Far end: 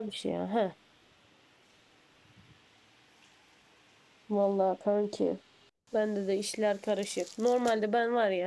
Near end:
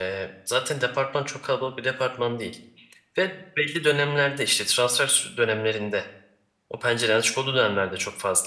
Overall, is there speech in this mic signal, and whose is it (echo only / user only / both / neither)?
user only